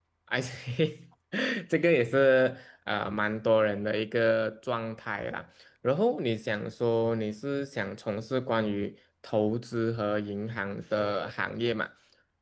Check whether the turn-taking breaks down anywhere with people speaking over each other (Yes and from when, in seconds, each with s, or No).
No